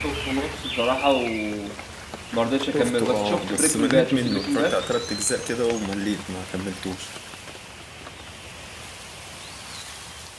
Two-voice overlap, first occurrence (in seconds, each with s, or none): 2.7 s